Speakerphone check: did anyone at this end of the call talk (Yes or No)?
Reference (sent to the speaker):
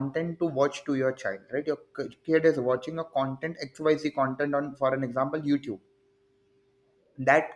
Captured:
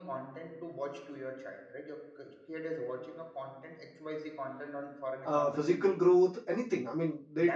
Yes